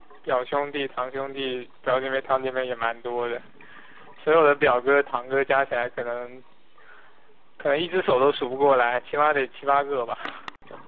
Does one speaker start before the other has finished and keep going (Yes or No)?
No